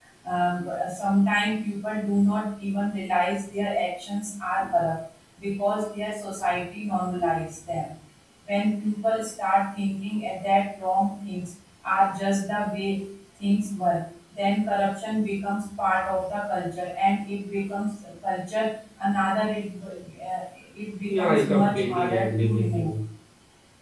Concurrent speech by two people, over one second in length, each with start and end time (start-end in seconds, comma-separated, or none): 21.1-22.9